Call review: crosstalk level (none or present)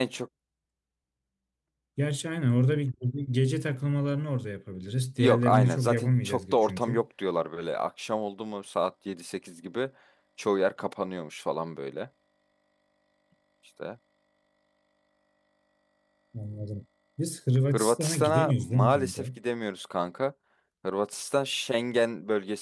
present